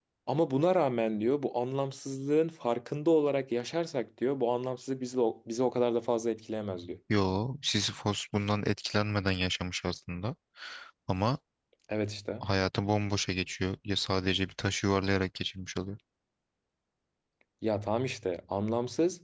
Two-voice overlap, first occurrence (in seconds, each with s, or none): none